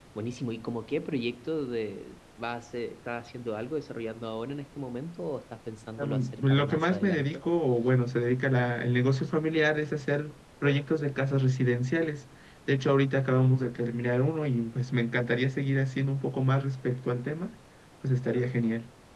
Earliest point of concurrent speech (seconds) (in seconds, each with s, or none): 6.0 s